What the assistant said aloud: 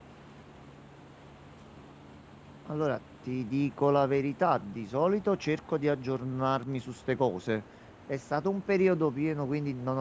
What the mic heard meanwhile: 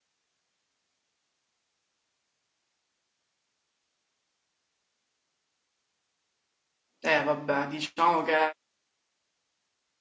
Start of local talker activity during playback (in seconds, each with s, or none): 7.0 s